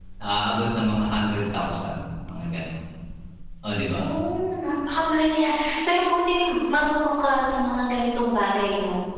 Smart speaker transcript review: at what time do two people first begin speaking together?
none

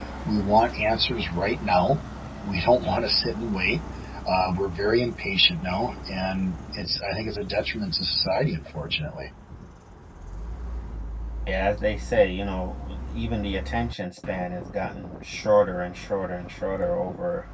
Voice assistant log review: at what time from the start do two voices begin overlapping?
none

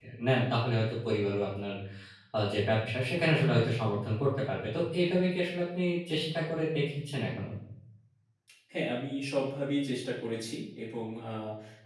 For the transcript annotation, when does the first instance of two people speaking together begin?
none

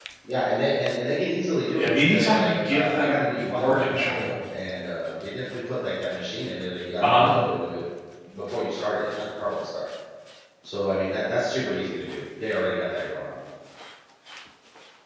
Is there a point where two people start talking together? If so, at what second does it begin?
2 s

